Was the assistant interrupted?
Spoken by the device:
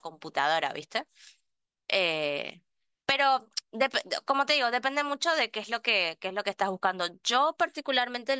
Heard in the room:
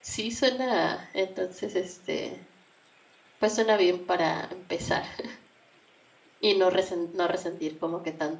Yes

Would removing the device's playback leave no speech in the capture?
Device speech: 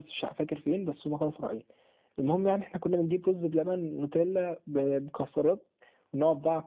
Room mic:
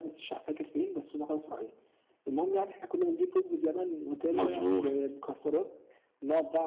No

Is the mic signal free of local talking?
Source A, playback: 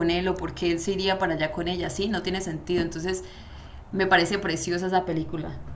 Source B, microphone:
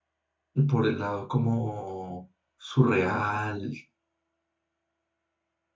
No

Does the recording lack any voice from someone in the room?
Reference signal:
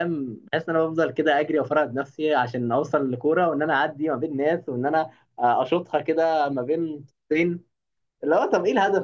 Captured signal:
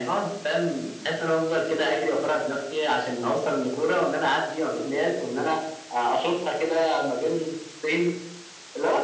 Yes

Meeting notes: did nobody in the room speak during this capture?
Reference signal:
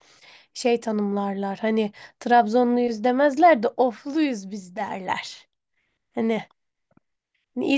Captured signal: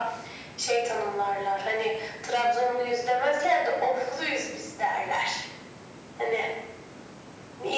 Yes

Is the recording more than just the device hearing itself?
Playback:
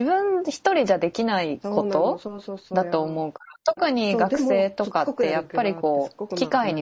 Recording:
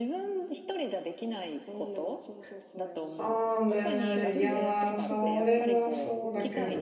Yes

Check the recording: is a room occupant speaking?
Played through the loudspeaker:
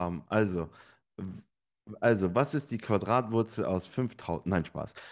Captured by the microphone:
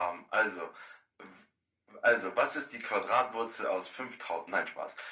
No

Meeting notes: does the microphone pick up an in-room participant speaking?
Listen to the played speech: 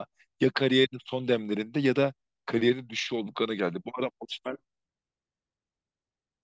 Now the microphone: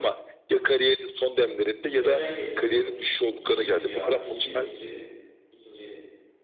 Yes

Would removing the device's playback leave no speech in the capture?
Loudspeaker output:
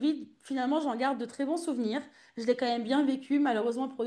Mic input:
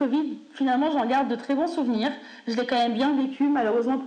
Yes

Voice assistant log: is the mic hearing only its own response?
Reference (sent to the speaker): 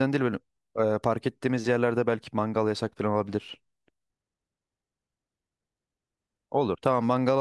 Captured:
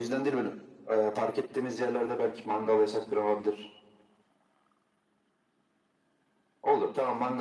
Yes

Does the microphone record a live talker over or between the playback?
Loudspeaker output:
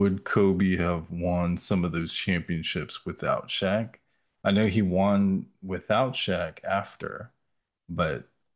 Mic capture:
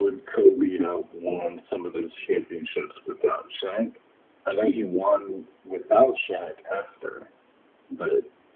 No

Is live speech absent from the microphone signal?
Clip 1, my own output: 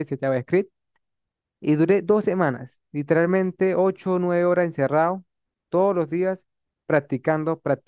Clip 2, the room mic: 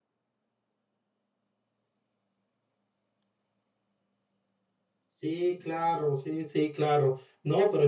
No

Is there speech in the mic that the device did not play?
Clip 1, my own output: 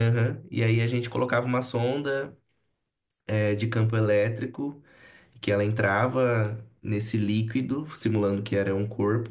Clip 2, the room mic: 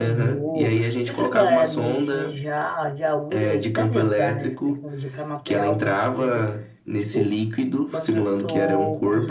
Yes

